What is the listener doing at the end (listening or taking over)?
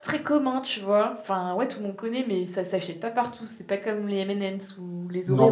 taking over